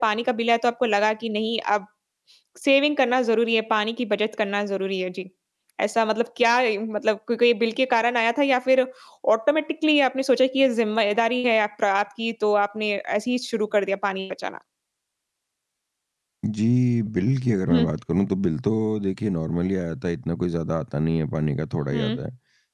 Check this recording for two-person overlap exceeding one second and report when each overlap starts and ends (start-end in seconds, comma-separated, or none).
none